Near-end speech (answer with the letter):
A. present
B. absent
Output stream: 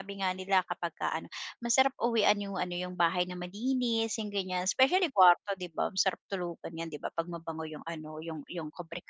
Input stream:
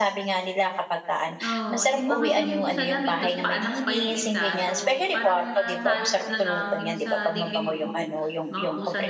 A